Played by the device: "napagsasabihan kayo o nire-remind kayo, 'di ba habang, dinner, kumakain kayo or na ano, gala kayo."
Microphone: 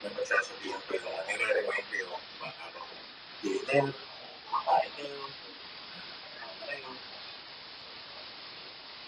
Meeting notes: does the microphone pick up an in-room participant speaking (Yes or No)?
No